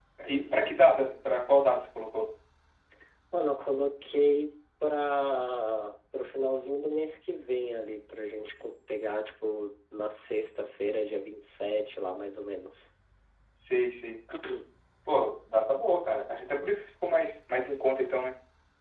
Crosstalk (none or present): none